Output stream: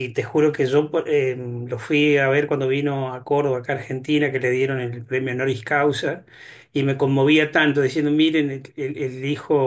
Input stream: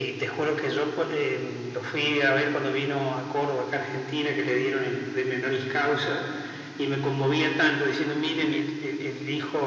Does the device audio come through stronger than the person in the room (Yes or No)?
Yes